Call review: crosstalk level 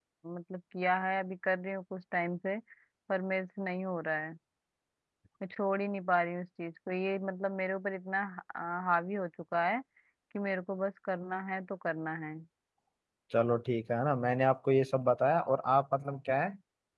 none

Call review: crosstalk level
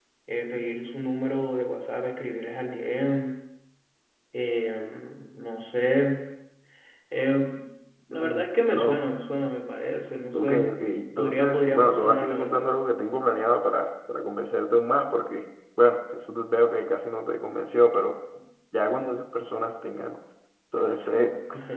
present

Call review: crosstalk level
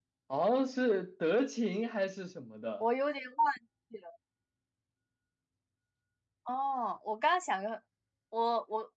none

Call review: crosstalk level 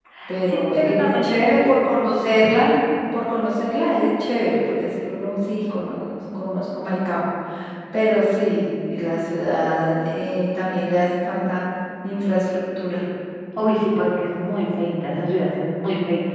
present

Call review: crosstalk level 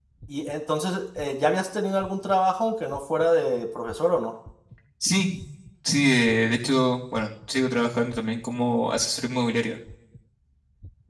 none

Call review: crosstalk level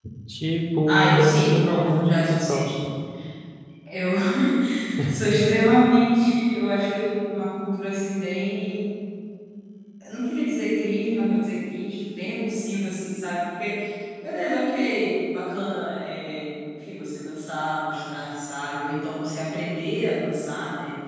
present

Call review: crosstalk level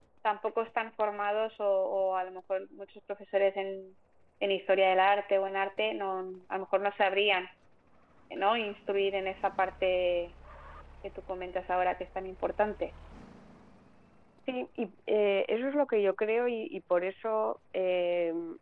none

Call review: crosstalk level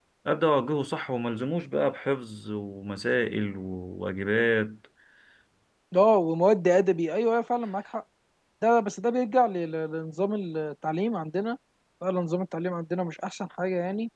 none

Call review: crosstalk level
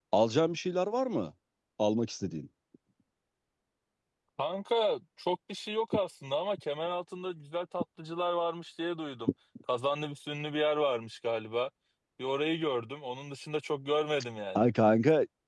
none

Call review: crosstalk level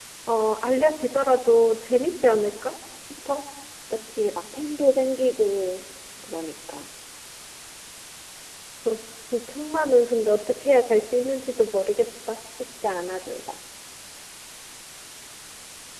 none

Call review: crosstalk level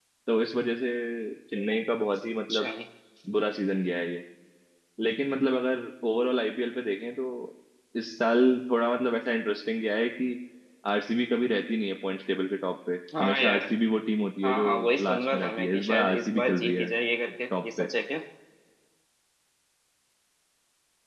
present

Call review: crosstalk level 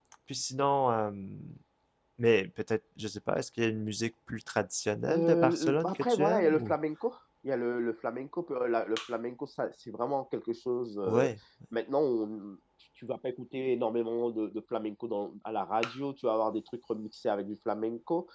present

